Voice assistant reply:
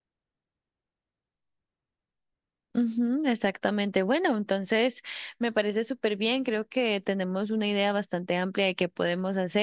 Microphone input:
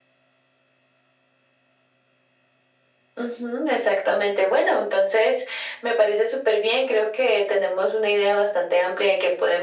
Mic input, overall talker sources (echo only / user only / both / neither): echo only